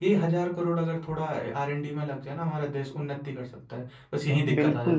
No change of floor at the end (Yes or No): No